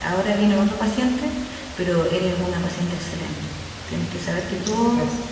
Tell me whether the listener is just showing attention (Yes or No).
Yes